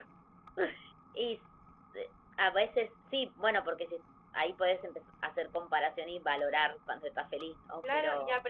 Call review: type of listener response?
taking over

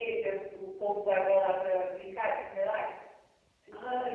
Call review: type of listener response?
taking over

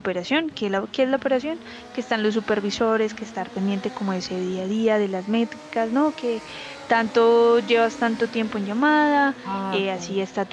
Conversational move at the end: listening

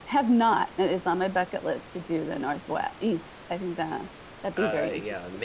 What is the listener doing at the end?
taking over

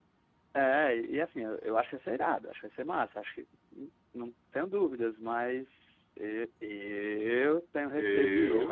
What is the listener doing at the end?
listening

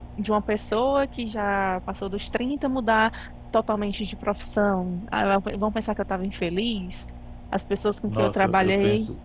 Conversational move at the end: taking over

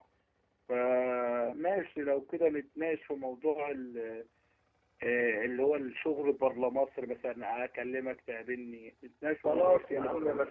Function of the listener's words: taking over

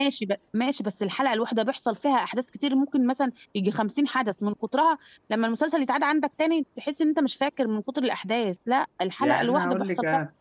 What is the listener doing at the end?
taking over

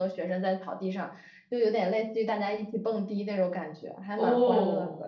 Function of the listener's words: taking over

